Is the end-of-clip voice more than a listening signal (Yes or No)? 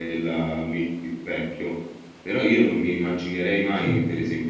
No